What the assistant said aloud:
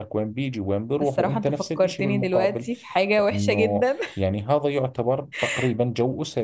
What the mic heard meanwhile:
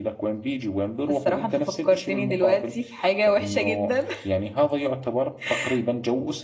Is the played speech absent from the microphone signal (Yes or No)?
No